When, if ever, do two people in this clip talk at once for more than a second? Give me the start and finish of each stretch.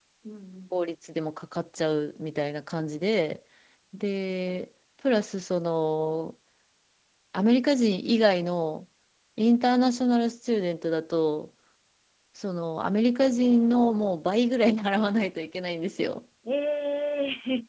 none

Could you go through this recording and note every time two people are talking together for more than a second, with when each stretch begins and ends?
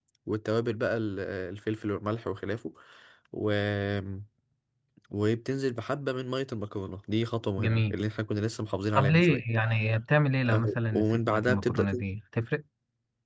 10.5-11.8

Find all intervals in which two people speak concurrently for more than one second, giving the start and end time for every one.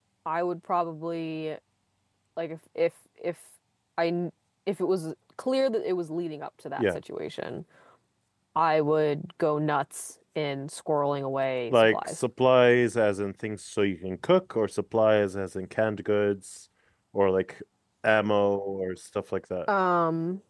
none

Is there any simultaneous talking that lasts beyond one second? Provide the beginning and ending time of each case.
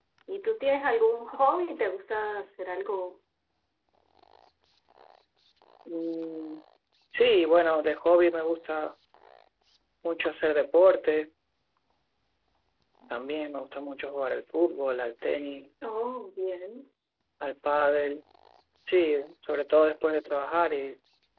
none

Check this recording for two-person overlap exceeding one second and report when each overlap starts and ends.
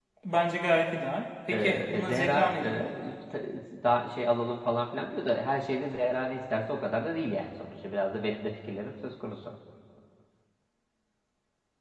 1.5-2.9

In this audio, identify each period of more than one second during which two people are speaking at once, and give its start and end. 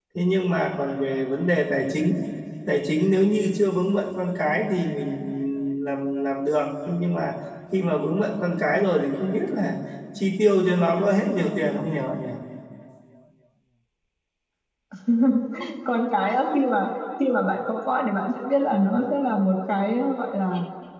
none

